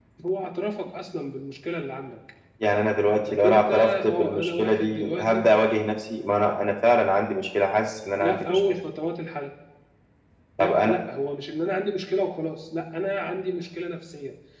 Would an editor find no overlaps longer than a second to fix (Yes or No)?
No